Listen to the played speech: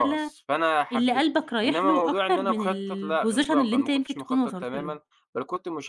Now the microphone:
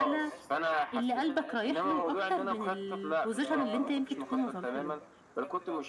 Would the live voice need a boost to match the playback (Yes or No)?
Yes